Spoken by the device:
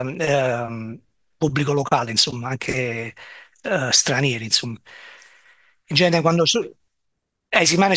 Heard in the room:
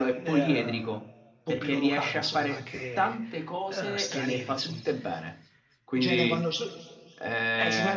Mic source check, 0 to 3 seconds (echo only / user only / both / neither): both